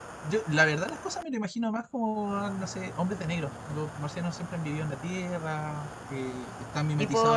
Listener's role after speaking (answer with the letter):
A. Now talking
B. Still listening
B